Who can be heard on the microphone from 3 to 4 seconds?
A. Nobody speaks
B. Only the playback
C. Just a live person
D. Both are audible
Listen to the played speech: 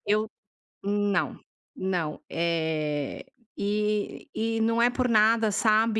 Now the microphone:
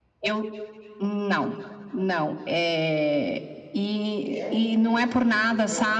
B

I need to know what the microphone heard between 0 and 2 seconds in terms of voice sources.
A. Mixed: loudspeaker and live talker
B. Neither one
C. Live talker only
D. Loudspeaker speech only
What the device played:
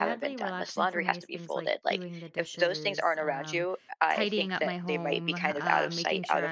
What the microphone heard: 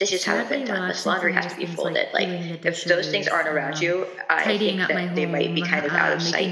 D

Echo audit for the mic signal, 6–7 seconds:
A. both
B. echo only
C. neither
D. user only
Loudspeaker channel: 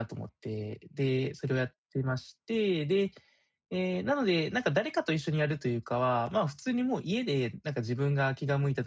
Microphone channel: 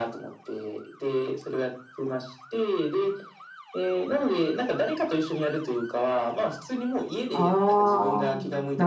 B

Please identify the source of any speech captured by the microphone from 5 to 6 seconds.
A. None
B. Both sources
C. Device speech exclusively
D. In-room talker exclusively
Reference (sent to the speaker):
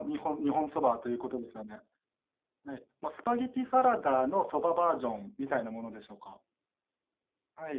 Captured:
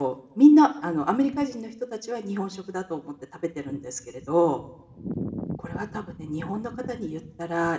D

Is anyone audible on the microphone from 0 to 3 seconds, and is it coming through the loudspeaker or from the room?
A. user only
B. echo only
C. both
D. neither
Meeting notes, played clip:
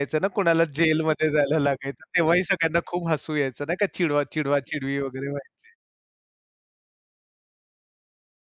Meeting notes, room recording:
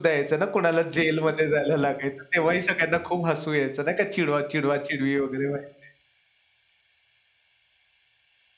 B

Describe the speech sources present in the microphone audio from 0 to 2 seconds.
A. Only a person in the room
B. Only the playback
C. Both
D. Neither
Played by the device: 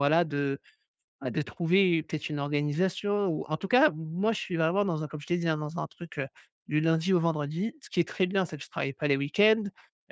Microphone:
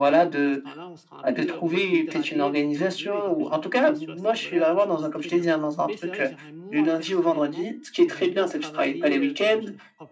C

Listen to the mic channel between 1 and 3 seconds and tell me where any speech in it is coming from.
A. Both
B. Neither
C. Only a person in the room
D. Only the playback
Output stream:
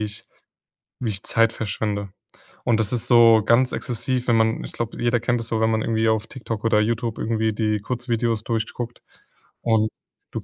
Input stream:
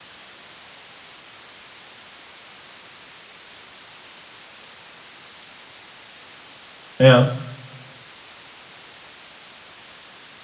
B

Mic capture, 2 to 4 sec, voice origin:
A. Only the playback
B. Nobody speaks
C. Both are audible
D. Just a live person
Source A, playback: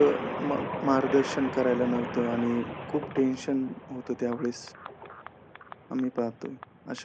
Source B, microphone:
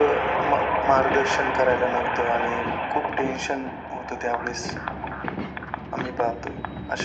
A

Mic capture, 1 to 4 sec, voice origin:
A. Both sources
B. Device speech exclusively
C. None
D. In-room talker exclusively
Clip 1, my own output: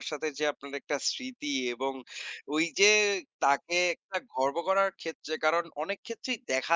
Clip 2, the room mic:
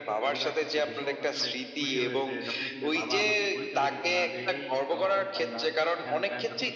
A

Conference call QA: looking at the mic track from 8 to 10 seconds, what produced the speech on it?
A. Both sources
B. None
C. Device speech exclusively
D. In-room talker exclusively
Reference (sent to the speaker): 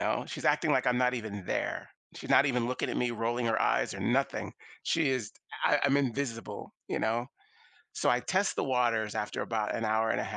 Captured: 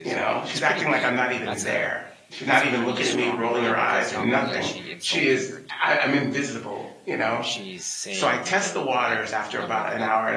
A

